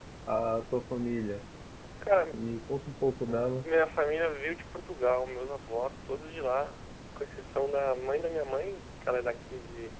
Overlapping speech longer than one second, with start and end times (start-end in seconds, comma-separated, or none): none